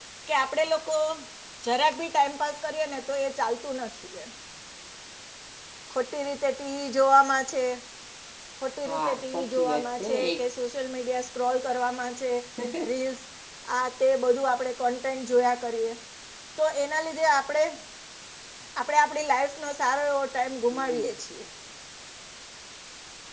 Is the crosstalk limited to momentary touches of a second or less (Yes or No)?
No